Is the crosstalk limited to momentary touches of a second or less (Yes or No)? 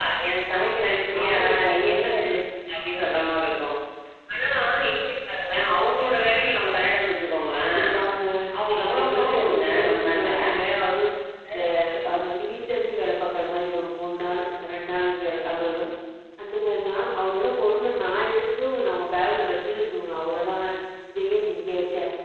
No